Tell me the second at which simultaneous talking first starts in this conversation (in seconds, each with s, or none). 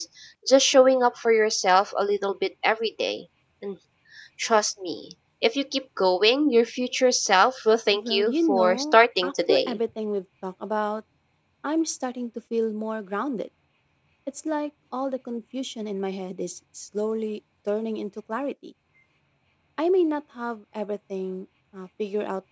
7.9 s